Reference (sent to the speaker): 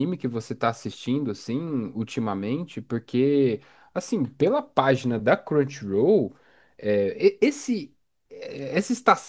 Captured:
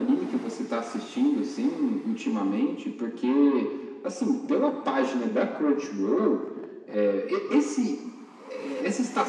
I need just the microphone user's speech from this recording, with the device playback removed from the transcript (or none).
none